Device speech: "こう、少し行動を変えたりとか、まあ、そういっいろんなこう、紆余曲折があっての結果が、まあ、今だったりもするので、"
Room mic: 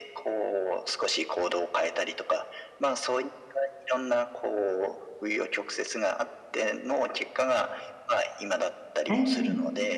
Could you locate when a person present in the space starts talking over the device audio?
9.1 s

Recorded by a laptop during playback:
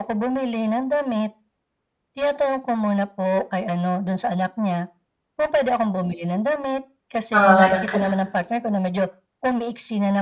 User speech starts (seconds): 7.3 s

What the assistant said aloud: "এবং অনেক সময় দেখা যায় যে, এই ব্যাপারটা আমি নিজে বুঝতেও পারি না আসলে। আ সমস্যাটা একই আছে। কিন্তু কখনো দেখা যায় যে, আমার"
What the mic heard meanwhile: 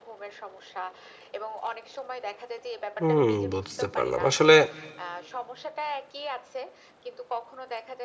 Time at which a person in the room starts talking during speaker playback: 3.0 s

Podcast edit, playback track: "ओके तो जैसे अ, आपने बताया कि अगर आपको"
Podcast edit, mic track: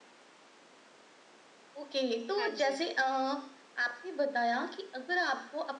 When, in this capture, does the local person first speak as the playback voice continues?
2.4 s

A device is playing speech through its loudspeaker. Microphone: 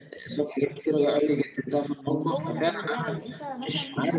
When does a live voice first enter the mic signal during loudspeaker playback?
2.2 s

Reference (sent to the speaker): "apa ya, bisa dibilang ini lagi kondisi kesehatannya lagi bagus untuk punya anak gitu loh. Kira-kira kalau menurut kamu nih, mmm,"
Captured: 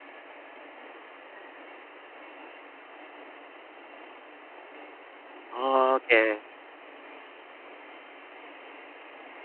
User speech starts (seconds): 5.6 s

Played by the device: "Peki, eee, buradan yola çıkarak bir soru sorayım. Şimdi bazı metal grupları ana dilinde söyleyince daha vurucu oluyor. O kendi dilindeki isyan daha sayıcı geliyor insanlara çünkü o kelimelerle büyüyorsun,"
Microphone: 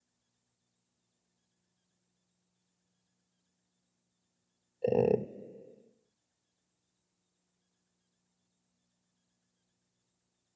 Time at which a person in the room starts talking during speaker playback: 4.9 s

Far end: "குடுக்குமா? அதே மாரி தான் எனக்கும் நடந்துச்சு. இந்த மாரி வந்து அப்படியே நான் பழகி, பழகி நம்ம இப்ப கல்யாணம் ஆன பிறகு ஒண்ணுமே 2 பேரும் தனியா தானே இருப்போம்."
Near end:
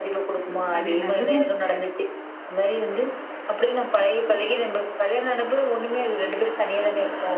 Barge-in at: 0.8 s

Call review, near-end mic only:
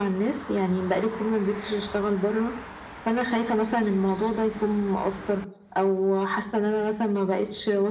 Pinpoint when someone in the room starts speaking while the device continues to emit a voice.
none

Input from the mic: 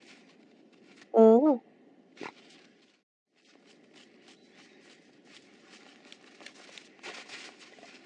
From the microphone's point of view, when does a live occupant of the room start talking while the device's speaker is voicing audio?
1.1 s

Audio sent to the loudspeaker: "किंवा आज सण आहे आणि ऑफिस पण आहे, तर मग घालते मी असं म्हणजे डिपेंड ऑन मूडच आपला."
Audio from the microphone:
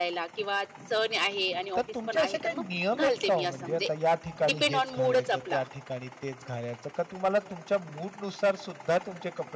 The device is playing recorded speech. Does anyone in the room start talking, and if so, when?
1.8 s

